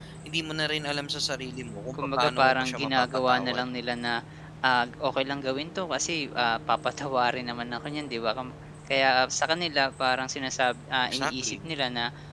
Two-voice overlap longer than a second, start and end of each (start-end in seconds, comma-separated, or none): 1.9-3.6